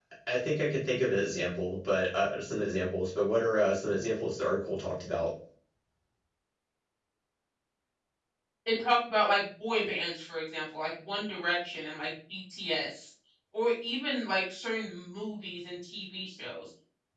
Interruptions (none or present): none